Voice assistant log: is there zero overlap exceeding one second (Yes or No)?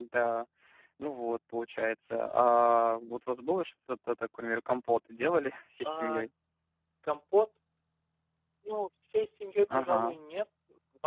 Yes